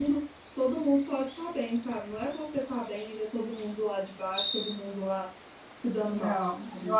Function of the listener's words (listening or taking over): taking over